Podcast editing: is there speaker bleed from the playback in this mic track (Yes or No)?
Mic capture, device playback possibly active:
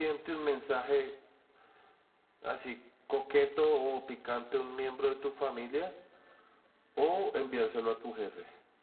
Yes